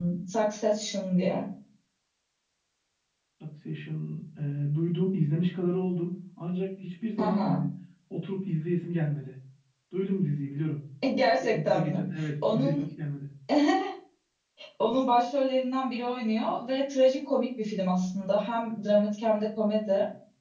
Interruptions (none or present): present